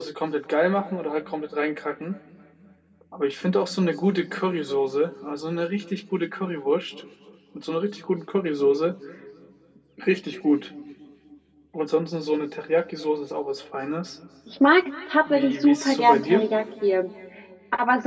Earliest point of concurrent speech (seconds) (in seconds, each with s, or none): 15.3 s